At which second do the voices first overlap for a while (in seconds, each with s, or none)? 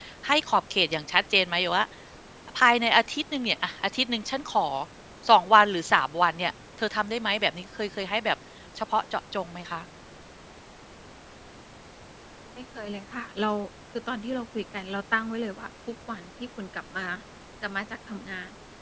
none